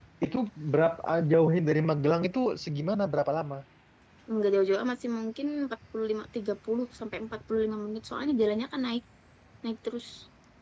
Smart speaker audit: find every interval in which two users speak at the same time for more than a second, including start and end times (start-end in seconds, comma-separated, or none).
none